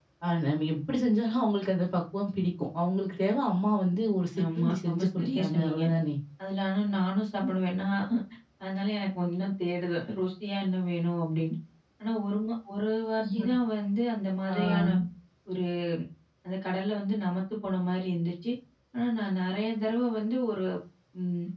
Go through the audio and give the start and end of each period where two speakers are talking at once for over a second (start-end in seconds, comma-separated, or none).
4.6-5.8